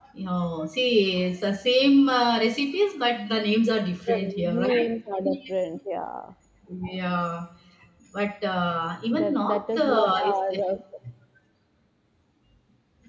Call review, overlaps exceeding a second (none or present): present